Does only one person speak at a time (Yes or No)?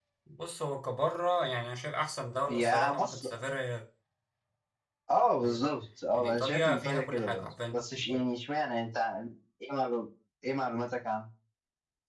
No